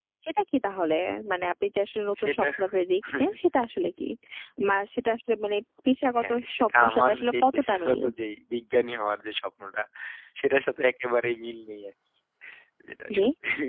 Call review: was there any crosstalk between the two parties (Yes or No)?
Yes